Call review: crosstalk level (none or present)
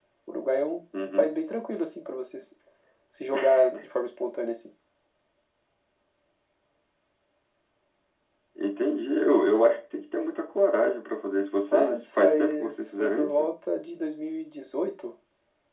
present